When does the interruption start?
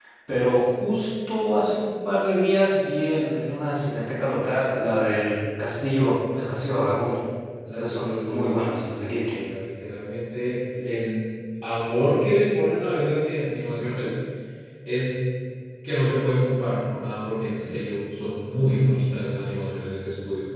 7.8 s

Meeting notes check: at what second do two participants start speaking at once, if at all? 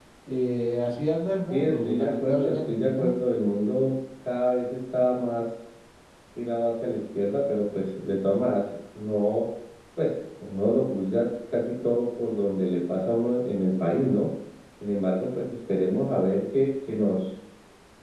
1.5 s

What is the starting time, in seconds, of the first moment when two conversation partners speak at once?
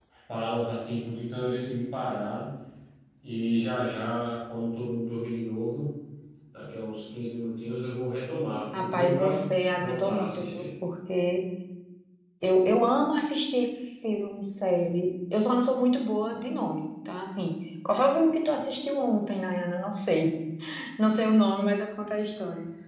8.7 s

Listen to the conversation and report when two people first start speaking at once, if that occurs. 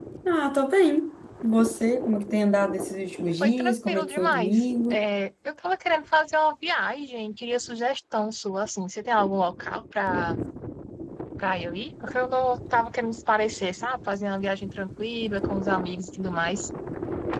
3.4 s

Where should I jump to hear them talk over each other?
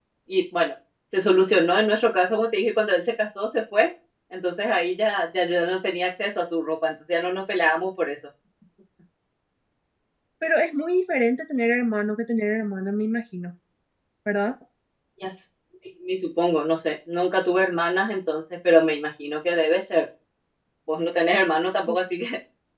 none

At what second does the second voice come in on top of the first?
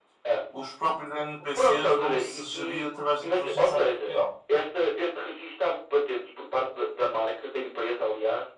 1.5 s

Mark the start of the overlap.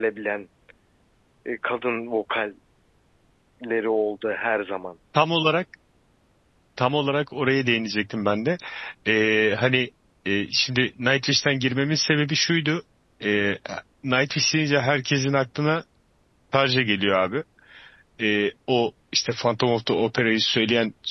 none

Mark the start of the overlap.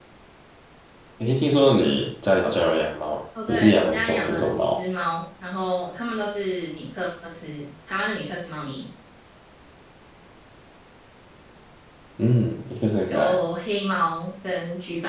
3.5 s

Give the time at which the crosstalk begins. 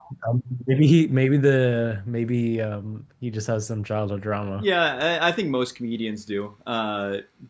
none

